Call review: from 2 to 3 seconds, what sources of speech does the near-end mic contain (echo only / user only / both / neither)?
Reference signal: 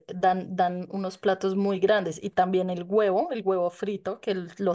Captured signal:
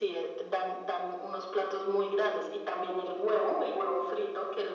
echo only